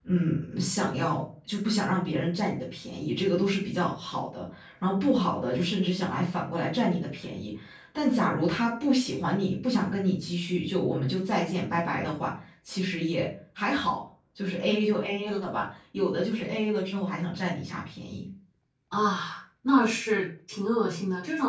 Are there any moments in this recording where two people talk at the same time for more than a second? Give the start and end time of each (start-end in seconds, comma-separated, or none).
none